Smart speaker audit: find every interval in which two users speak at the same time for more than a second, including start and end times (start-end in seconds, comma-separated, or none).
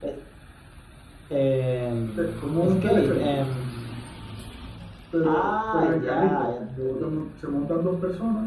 2.2-3.4, 5.2-7.2